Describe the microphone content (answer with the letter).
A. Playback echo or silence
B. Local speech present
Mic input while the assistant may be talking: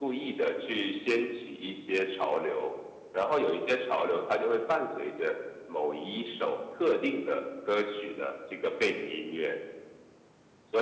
A